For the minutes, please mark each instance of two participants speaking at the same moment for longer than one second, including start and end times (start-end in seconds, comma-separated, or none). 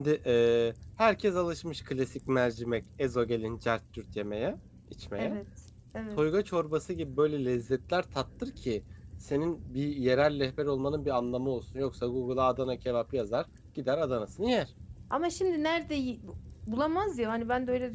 none